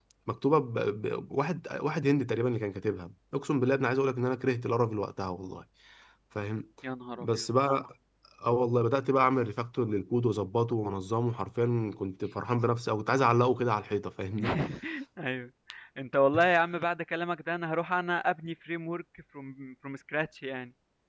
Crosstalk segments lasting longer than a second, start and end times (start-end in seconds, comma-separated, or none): none